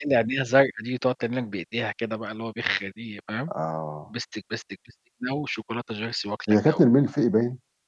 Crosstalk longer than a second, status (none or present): none